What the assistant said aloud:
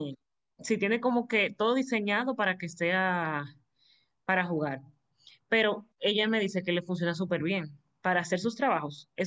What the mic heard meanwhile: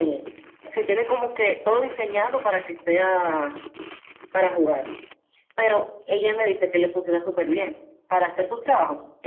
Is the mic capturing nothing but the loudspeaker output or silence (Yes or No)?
Yes